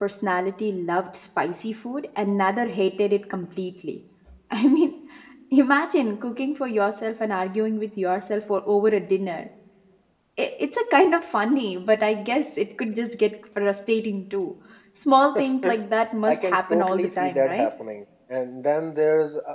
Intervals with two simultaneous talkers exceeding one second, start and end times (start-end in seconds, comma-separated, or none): 16.3-17.7